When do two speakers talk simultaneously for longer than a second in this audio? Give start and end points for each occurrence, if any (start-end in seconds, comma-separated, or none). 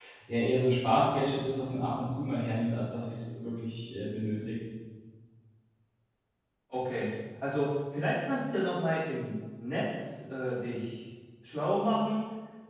none